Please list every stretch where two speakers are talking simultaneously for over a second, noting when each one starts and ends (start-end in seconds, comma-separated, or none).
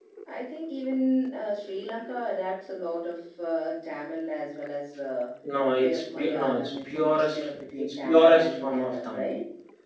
5.8-9.3